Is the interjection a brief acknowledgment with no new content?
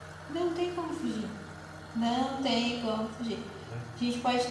Yes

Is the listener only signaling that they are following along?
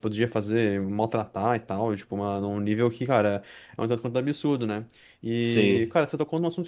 Yes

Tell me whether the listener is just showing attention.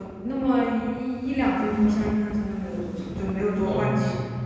No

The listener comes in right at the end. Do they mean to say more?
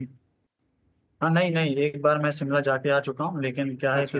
No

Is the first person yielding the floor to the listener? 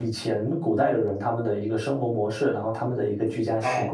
Yes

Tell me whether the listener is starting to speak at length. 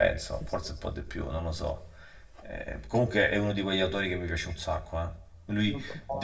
No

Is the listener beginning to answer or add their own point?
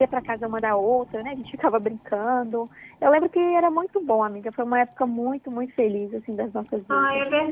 Yes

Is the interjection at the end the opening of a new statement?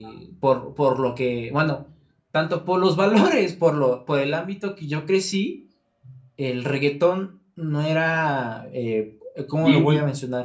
No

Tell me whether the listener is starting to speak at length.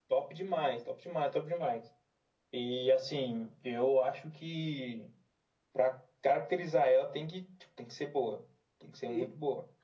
Yes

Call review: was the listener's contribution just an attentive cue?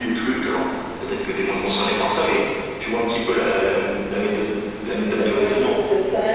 No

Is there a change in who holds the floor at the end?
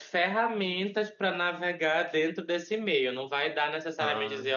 No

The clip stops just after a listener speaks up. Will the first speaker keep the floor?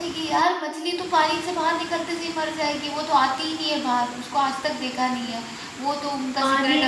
No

